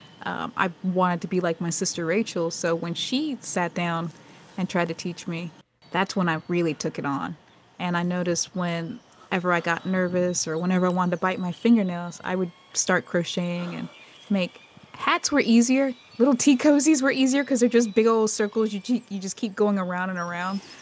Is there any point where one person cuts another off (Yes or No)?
No